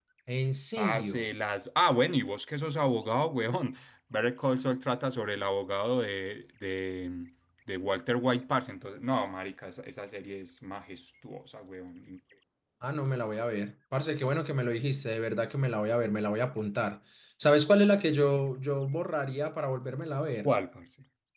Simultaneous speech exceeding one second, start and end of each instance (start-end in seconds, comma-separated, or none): none